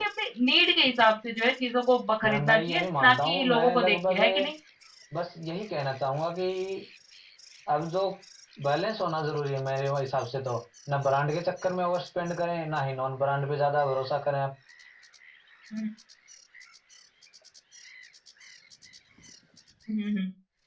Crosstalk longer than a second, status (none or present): present